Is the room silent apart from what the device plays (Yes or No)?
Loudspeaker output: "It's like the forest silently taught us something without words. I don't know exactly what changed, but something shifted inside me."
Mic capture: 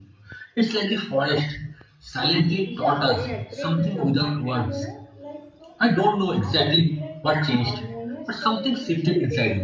No